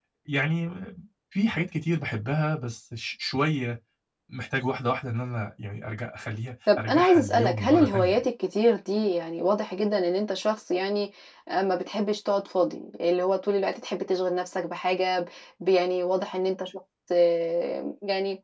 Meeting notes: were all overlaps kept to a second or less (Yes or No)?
No